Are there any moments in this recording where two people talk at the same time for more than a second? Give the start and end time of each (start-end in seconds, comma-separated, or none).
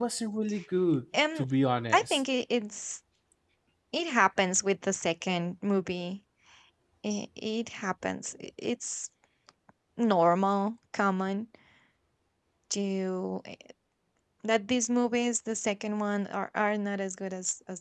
none